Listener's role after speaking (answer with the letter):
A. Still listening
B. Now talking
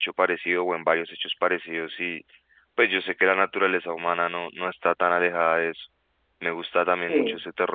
A